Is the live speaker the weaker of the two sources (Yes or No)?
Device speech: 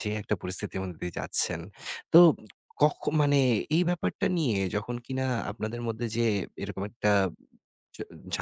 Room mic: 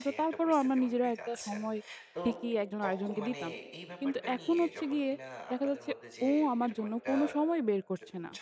No